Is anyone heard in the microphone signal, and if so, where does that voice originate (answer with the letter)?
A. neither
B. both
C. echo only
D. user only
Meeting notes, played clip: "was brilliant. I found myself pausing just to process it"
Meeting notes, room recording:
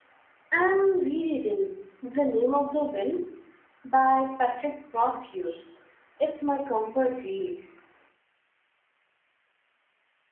D